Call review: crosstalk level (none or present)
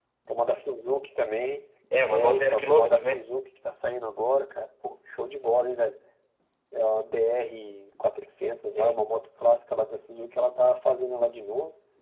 present